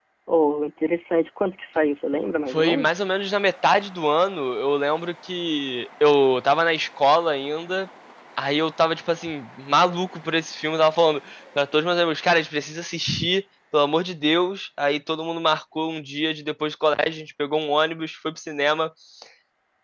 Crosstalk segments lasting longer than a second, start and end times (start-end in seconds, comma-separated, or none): none